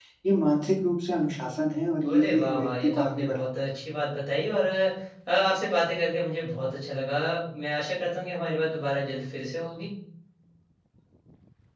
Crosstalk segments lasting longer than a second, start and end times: 2.1-3.5

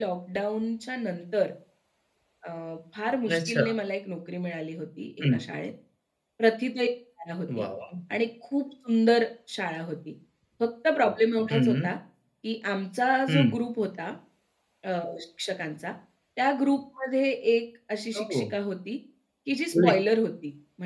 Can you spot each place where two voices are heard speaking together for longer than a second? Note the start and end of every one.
none

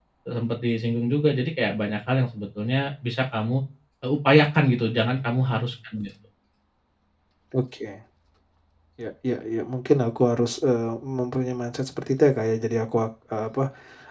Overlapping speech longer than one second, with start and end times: none

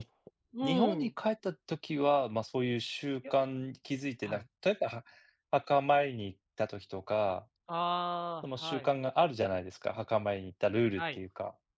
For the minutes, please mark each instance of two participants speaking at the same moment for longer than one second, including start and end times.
none

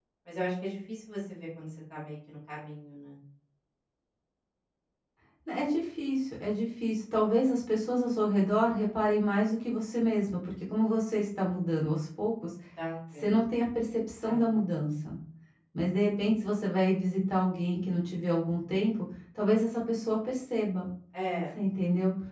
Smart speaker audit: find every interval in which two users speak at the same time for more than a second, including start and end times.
none

